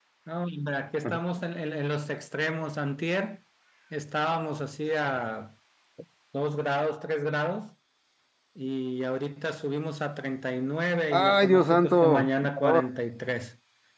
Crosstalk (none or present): present